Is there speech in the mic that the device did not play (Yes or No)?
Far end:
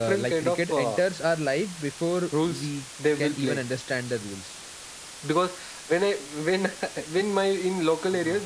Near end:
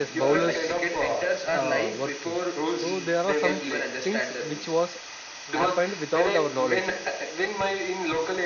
Yes